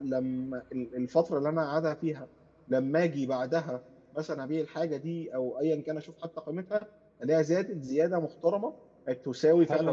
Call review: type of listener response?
taking over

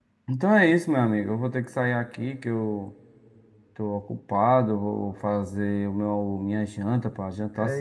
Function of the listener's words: taking over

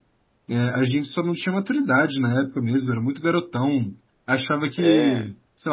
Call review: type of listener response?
listening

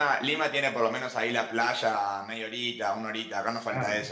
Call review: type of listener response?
taking over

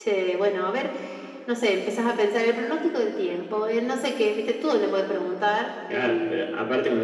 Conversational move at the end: taking over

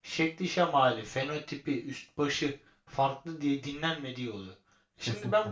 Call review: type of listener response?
listening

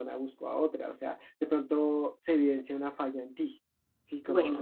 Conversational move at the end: taking over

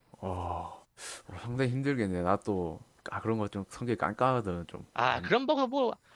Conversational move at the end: taking over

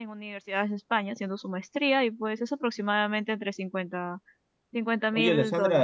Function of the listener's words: taking over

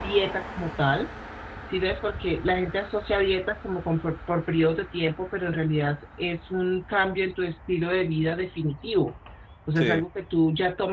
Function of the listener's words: listening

